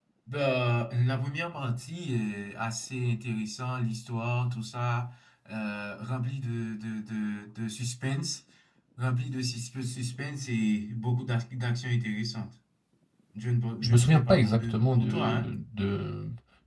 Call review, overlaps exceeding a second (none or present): present